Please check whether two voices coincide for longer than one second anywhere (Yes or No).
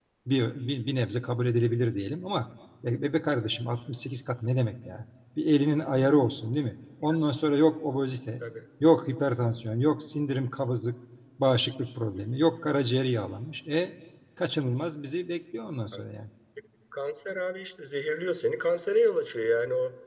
No